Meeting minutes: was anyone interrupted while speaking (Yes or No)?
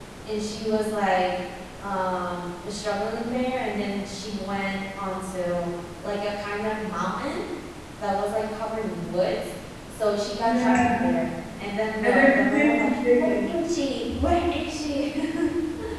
Yes